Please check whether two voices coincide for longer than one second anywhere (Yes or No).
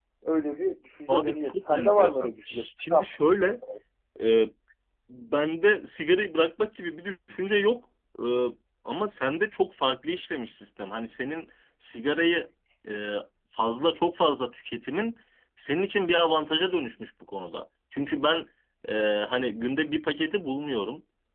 Yes